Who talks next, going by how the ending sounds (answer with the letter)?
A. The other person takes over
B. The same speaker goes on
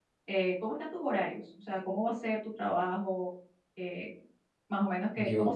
B